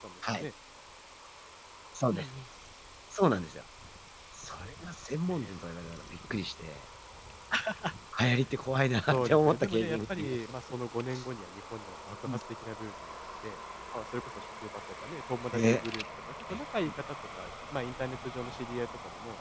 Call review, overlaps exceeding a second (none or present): present